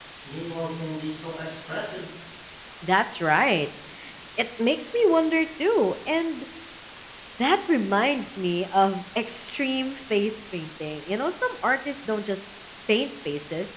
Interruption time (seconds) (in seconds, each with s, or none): none